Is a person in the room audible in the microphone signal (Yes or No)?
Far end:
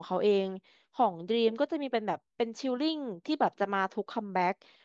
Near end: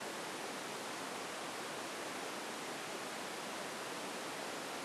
No